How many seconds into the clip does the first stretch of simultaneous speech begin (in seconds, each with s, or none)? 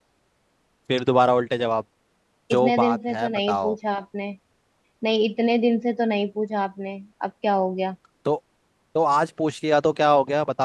2.5 s